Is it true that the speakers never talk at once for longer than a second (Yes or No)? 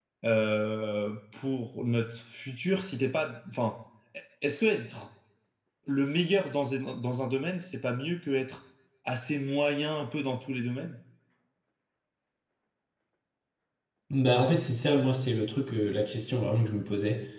Yes